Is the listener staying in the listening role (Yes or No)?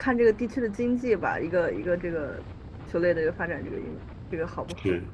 No